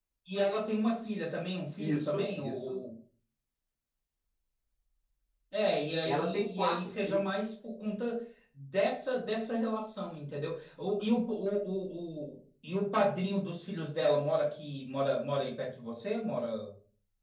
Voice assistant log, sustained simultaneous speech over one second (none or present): present